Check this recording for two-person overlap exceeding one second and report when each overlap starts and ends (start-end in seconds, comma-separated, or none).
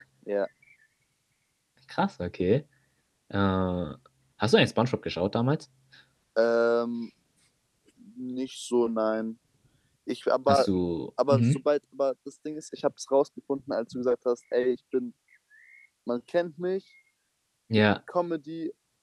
none